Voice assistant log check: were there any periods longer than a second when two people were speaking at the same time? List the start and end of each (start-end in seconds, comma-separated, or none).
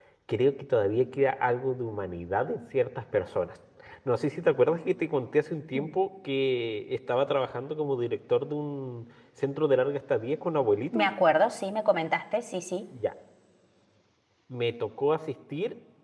none